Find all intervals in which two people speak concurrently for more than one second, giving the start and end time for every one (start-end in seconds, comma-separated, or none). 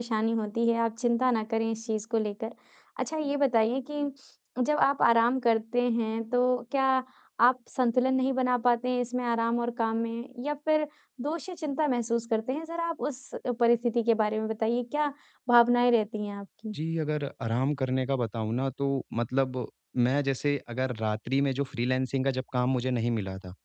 none